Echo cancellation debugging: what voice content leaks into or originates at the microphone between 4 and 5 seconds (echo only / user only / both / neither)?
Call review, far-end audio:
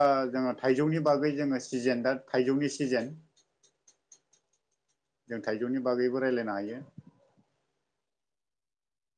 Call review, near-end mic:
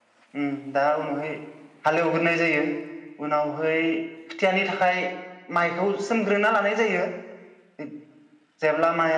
user only